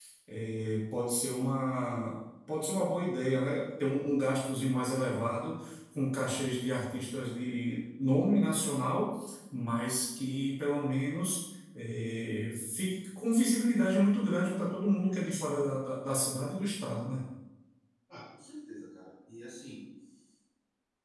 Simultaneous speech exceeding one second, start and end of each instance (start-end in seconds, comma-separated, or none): none